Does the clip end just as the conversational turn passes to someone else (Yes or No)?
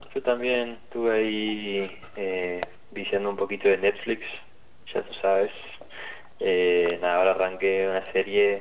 No